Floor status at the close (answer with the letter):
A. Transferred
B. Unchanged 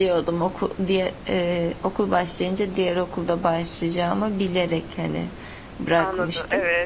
A